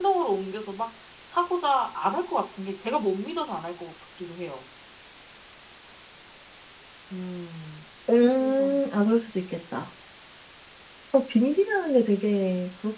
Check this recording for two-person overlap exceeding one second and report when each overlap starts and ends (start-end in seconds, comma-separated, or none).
none